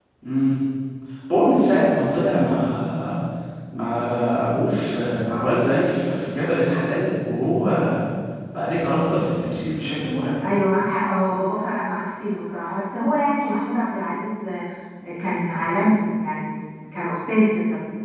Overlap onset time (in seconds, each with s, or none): none